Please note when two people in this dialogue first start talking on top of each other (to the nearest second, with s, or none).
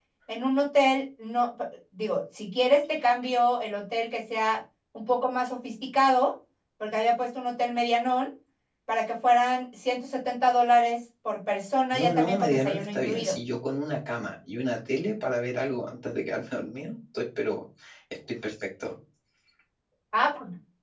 12 s